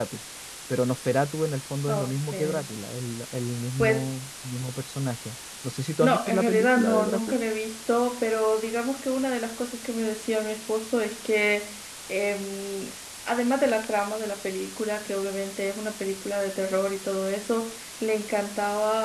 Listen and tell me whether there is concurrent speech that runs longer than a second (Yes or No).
Yes